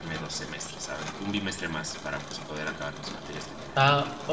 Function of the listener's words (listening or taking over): taking over